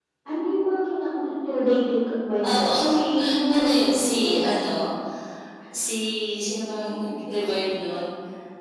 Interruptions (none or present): present